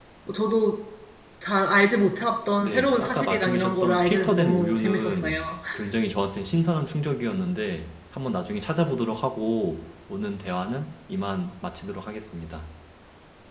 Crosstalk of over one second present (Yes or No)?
Yes